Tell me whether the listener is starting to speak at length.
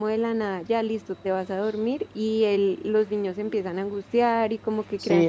Yes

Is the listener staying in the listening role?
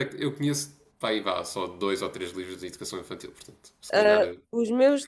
No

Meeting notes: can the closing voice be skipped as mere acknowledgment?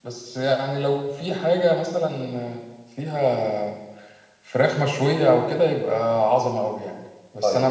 Yes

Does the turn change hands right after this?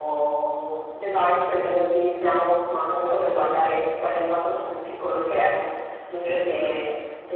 No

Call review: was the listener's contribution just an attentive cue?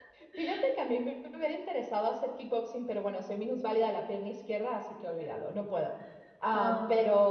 Yes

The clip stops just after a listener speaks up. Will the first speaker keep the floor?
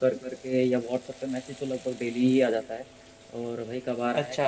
Yes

